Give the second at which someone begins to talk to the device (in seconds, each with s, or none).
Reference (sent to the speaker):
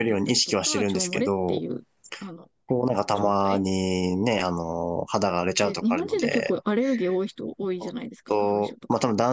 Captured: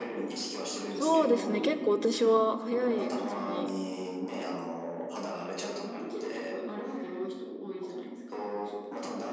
0.9 s